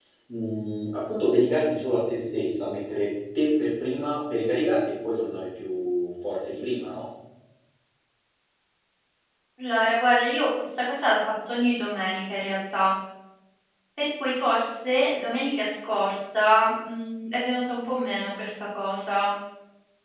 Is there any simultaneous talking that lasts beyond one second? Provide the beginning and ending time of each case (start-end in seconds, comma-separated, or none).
none